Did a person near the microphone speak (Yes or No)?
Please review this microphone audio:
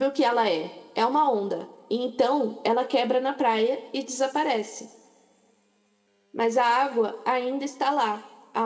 Yes